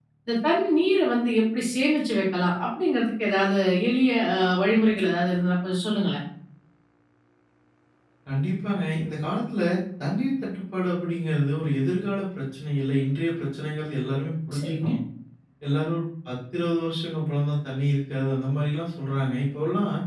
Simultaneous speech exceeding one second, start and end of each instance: none

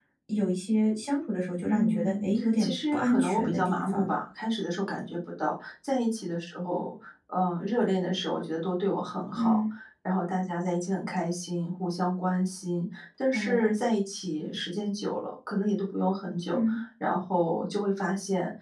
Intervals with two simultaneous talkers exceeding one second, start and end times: 1.6-4.1

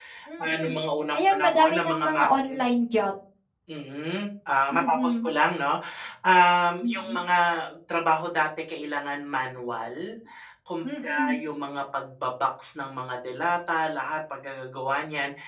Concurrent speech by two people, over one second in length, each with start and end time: 1.1-2.5

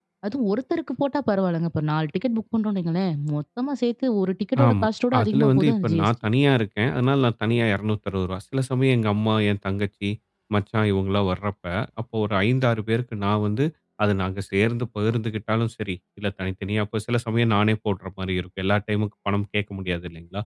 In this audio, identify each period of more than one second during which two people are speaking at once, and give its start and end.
4.7-6.1

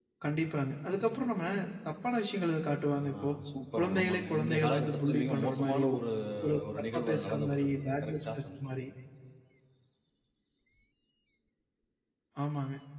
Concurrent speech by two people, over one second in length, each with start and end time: 3.8-5.9, 6.6-8.7

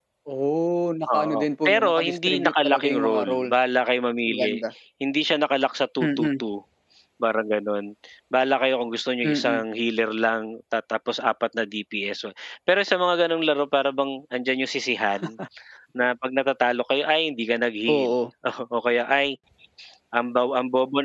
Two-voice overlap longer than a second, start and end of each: 1.1-3.5

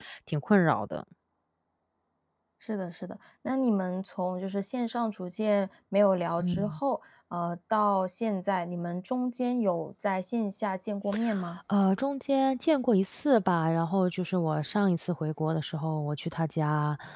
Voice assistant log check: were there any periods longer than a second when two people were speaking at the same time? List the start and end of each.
none

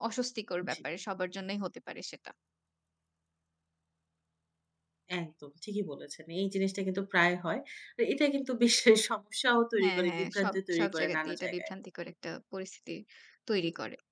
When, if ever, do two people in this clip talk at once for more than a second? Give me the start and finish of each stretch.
9.8-11.7

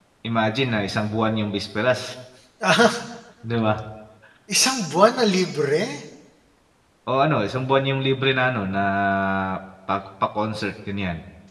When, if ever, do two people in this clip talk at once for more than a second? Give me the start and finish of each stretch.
none

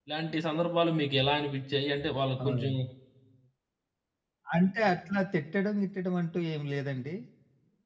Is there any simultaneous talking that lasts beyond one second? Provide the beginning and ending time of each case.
none

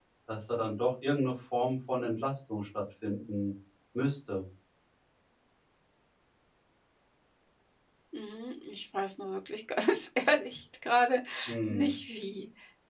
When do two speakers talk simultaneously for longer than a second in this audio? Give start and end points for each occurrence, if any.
none

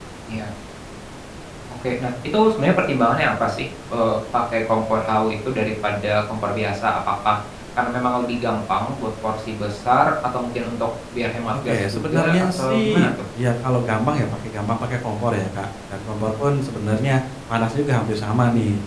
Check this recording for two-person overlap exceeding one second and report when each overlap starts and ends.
11.5-13.1

